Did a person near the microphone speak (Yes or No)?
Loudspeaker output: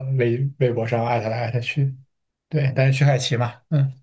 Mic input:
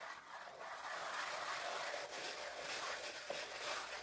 No